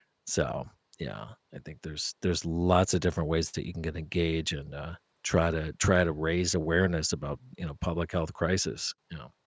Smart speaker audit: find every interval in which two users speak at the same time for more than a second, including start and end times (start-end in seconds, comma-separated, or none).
none